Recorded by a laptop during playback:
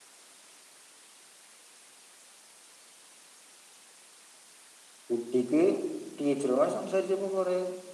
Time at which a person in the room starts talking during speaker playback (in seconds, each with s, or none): 5.1 s